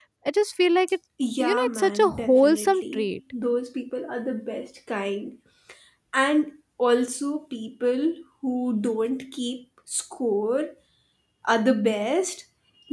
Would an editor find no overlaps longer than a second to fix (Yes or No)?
No